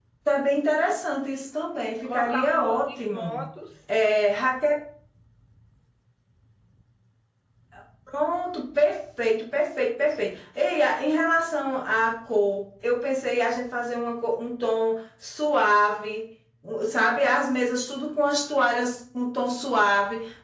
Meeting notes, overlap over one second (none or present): present